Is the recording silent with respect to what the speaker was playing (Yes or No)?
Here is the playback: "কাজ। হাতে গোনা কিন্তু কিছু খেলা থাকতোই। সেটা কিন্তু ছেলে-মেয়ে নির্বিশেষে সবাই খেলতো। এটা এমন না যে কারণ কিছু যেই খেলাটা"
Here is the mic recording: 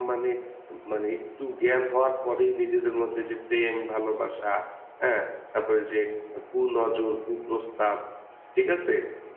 Yes